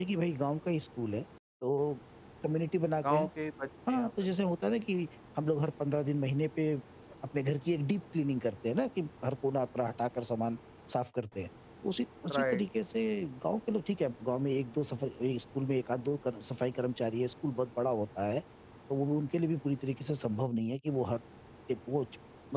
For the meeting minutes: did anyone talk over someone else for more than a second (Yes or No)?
No